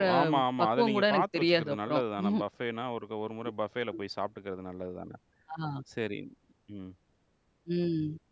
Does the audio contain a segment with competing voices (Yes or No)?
Yes